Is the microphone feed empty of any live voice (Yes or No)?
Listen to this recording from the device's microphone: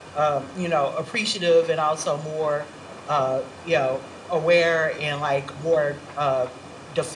Yes